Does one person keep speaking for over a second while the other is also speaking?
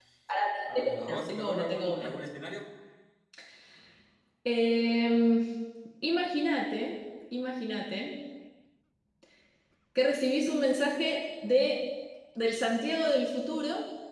Yes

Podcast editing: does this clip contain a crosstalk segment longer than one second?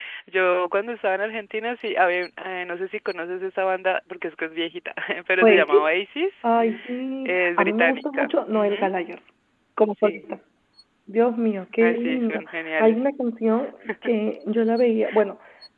Yes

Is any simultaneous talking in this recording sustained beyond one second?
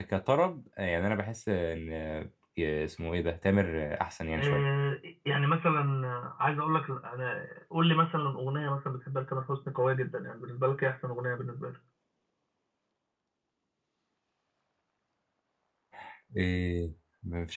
No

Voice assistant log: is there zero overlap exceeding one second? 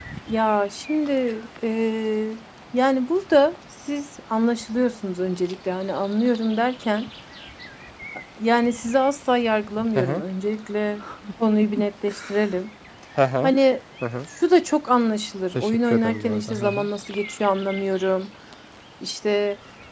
No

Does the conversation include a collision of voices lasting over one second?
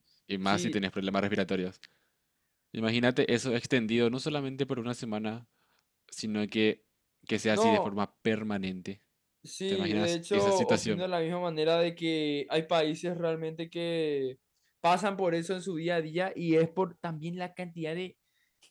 Yes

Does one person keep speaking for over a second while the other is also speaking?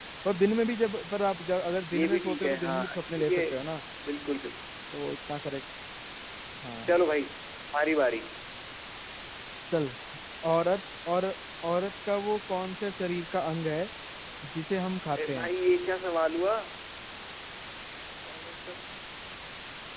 Yes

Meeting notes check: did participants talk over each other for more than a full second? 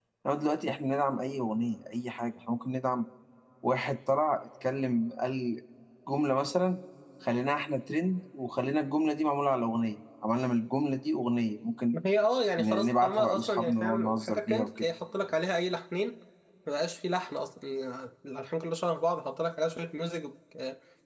Yes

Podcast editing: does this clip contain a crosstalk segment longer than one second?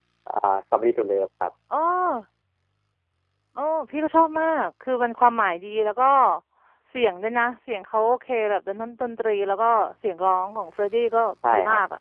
No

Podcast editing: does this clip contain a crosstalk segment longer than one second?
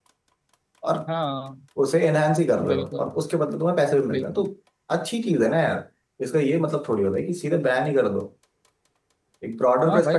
No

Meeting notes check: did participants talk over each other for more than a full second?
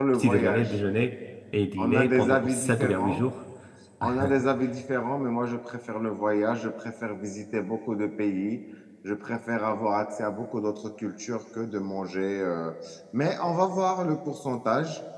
Yes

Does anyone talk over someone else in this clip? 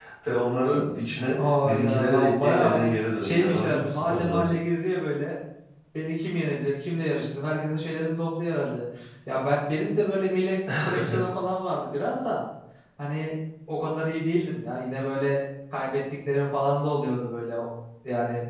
Yes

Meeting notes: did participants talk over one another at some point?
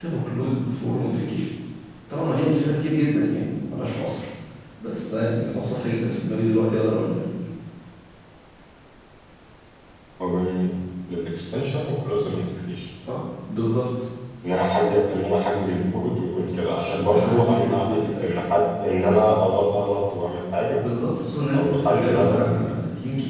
Yes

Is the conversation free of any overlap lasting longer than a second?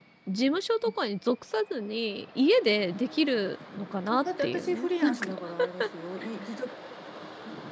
No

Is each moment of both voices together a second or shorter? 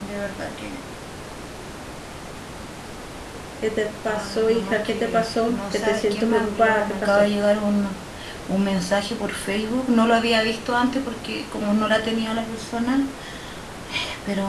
No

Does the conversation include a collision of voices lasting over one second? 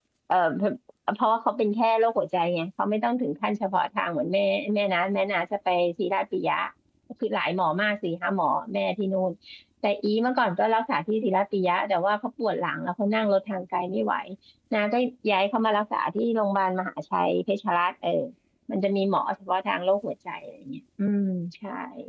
No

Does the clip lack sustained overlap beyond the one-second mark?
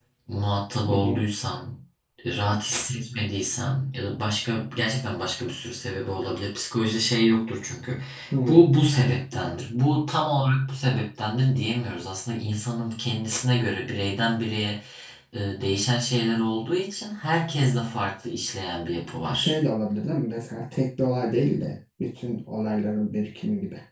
Yes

